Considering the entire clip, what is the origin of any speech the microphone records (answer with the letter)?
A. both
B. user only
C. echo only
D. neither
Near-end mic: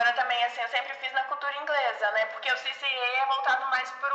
C